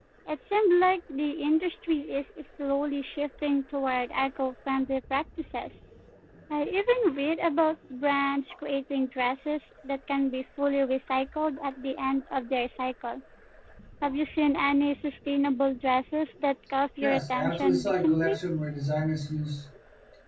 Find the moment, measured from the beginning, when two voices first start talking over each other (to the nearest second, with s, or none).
17 s